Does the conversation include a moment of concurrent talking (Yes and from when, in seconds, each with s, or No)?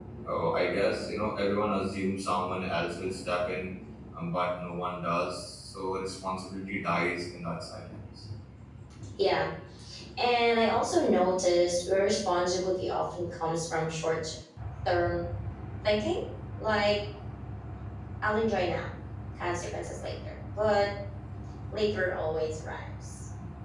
No